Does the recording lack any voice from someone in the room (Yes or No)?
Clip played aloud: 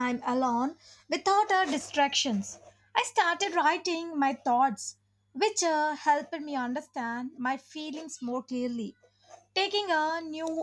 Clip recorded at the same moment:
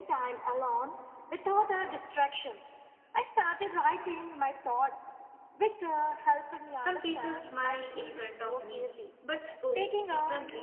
No